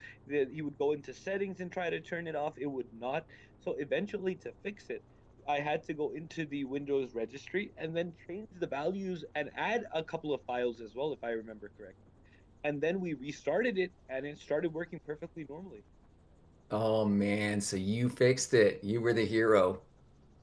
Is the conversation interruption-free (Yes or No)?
Yes